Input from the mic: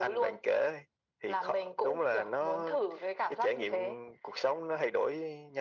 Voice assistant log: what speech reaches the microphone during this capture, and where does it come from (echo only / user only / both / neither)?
echo only